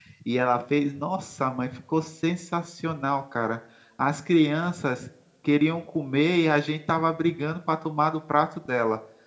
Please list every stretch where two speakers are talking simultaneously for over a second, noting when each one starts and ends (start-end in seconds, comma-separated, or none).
none